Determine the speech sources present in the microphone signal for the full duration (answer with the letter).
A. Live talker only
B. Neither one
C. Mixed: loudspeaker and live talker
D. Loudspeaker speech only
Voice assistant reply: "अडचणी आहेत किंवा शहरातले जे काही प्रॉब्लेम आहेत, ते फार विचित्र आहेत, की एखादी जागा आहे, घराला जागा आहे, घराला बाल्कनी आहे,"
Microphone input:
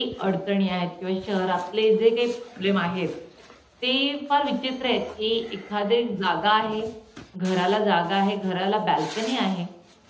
D